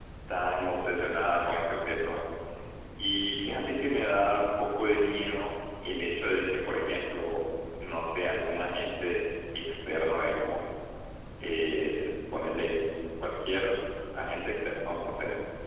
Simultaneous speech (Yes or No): No